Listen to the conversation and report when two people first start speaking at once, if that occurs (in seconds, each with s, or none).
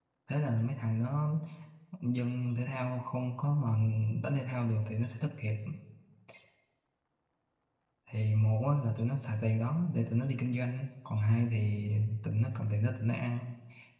none